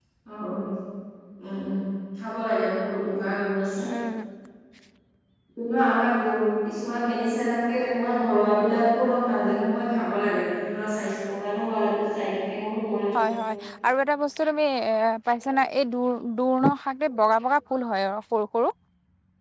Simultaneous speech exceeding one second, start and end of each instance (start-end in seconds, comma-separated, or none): none